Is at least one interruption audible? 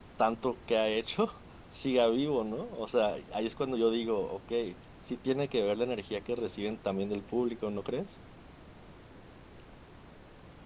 No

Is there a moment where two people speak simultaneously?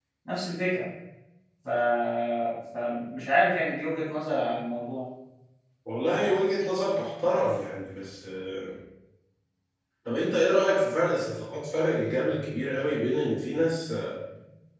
No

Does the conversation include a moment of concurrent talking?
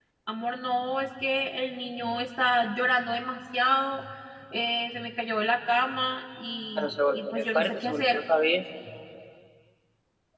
Yes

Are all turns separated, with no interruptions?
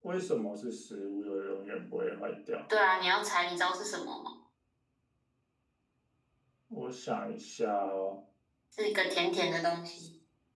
Yes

